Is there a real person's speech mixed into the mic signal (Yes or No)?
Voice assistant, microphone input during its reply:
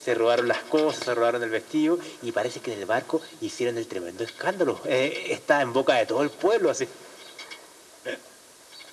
No